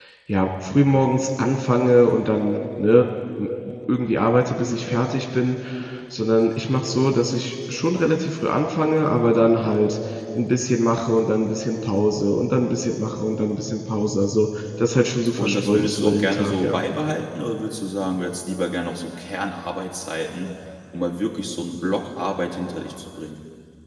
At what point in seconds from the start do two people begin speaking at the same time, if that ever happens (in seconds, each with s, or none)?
15.4 s